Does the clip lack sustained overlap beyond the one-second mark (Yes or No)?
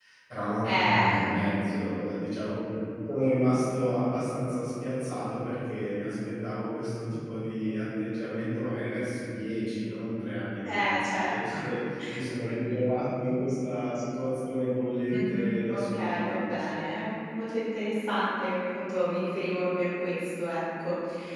No